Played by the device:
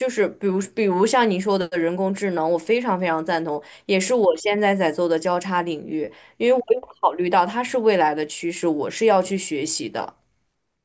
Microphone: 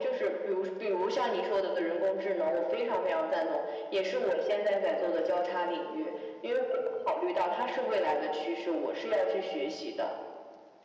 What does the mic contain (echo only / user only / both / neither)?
echo only